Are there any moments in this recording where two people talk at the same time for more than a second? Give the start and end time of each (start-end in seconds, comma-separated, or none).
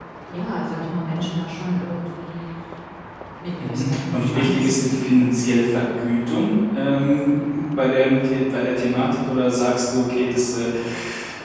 3.6-5.2